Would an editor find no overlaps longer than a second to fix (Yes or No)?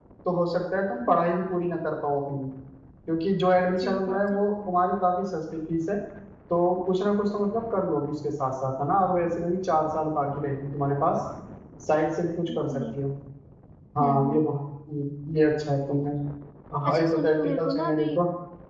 No